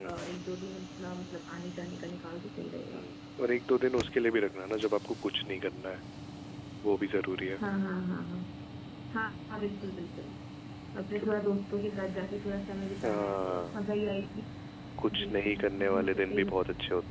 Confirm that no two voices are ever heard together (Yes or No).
No